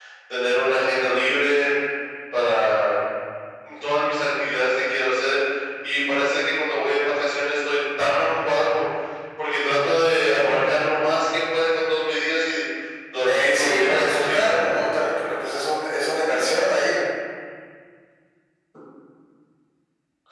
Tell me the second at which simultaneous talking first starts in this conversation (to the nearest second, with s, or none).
13 s